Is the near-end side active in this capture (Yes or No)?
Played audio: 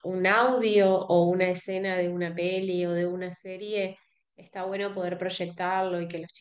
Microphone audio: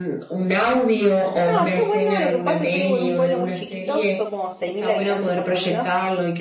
Yes